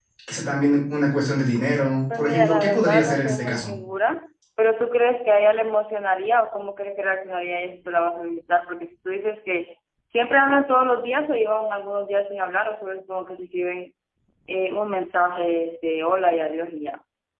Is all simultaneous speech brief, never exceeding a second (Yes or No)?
No